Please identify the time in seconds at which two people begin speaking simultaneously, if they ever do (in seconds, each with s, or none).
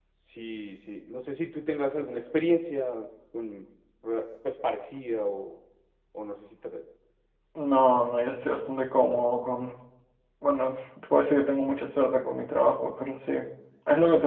none